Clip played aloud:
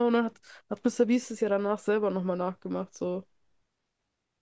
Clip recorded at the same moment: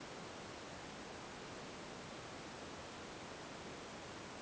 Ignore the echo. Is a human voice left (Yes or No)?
No